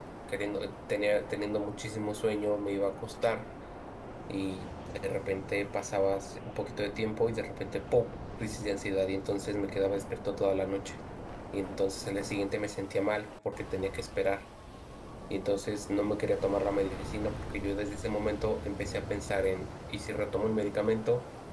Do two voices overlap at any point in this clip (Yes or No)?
No